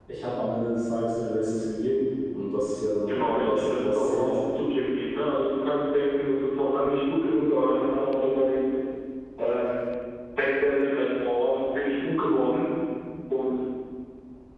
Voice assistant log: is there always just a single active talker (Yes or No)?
No